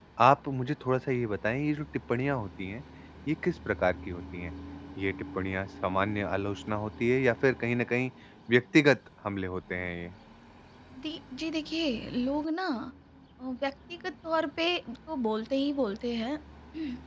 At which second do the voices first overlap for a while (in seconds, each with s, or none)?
none